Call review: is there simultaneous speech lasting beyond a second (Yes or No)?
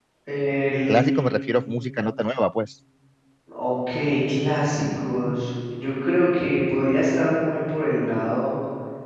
No